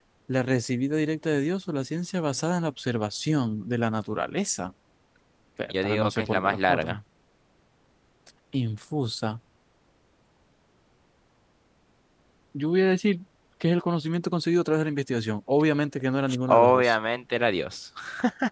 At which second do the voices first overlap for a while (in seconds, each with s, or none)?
5.7 s